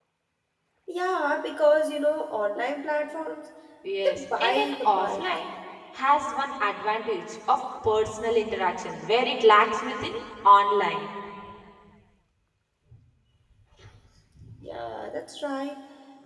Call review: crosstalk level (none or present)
present